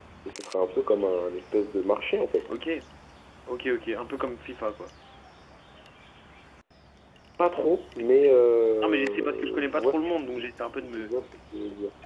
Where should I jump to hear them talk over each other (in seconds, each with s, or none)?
8.8 s